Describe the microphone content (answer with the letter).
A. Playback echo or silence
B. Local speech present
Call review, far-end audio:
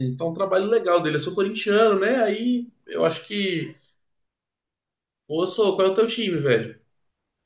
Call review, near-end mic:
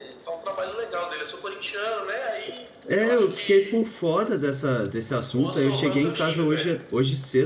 B